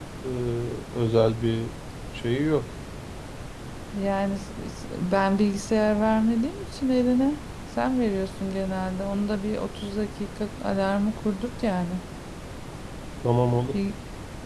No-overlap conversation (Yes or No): Yes